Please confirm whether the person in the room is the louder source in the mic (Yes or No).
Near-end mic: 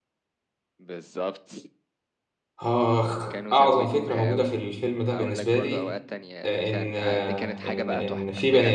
Yes